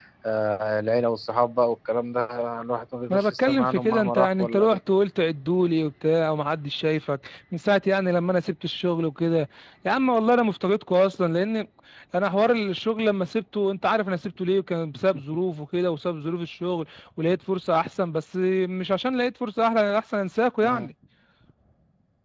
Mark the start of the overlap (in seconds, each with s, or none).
3.1 s